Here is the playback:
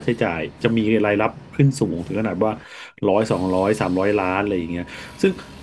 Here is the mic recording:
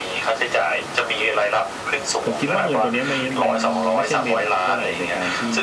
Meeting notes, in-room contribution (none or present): present